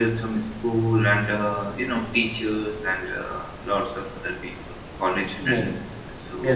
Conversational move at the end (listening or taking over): taking over